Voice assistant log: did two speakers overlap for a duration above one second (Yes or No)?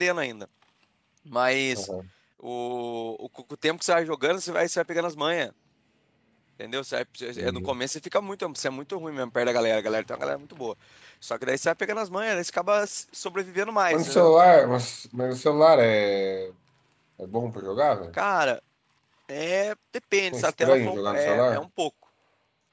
Yes